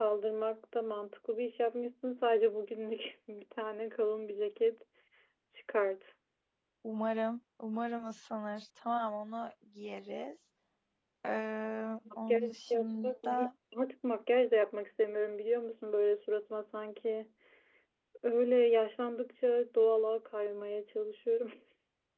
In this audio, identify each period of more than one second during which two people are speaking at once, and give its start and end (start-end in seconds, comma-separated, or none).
12.3-13.5